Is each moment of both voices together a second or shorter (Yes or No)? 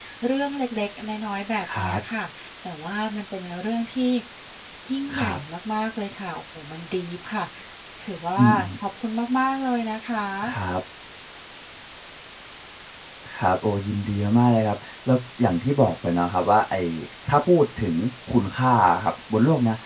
Yes